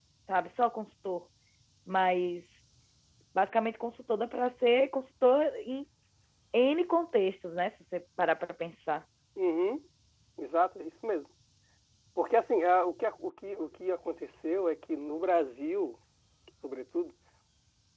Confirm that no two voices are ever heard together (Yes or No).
Yes